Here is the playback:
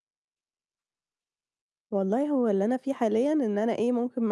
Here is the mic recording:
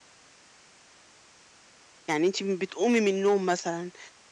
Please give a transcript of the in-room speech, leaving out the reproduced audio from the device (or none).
يعني أنتِ م بتقومي من النوم مثلًا،